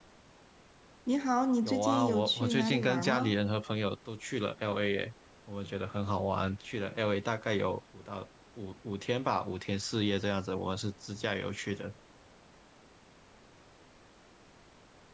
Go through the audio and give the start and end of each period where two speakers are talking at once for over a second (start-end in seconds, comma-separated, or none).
1.6-3.4